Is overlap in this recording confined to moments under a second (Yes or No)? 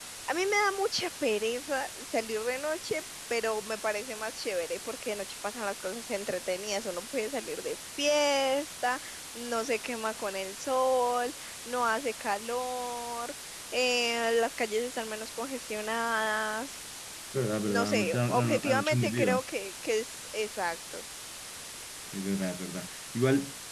No